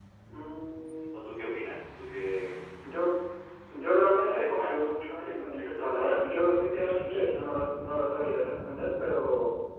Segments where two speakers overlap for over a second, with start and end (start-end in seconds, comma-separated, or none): 4.2-7.5